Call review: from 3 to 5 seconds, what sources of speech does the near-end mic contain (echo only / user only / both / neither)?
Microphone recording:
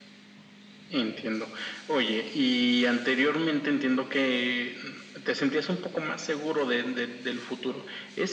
echo only